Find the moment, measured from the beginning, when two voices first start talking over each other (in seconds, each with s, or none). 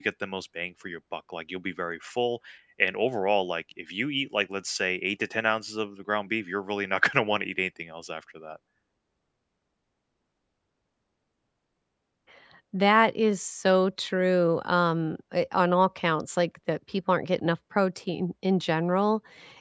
none